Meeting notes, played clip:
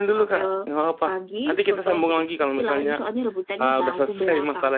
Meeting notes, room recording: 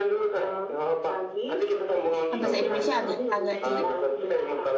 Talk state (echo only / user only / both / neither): both